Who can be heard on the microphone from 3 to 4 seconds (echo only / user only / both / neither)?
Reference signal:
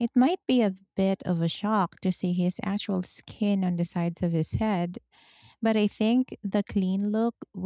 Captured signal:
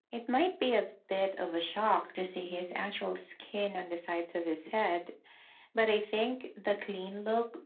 echo only